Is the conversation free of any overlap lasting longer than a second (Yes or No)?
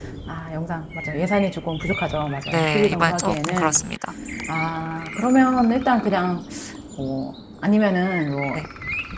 No